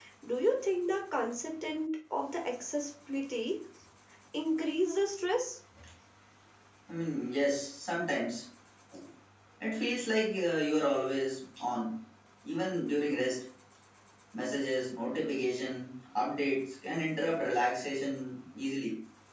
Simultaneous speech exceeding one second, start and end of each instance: none

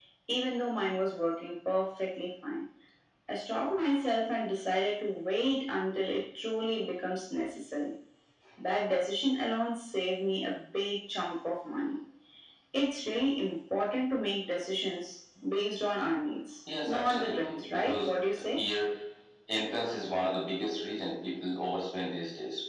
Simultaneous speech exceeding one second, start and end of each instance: 16.8-18.1

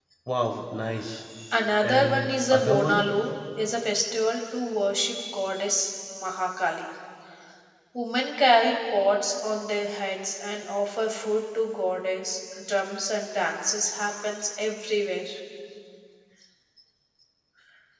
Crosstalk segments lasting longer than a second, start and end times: 1.8-3.0

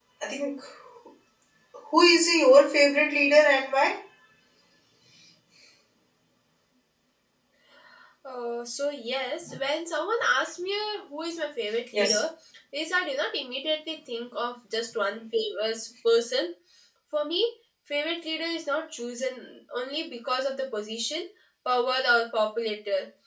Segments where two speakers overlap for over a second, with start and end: none

